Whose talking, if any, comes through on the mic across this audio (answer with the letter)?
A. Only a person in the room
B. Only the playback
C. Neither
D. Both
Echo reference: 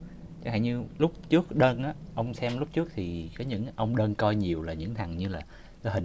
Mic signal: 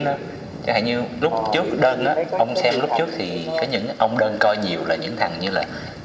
D